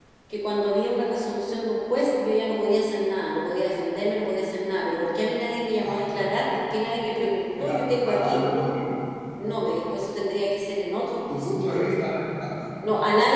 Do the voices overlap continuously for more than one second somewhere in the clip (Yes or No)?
No